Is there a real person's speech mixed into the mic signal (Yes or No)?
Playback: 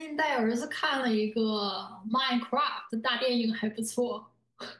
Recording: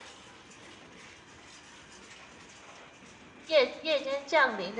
Yes